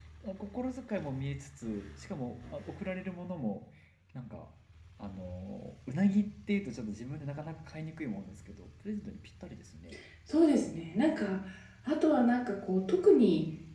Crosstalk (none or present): none